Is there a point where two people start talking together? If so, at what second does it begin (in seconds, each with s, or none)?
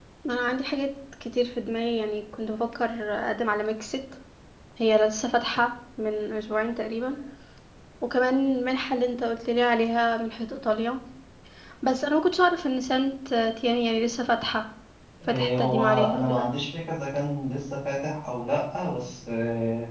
15.3 s